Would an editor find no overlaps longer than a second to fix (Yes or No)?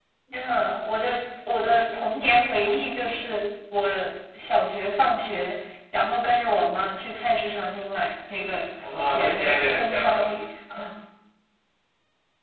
No